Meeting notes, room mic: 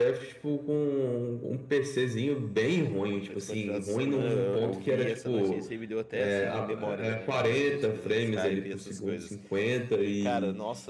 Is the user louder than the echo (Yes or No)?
No